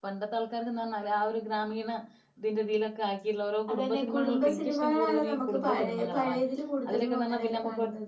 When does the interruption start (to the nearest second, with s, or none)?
4 s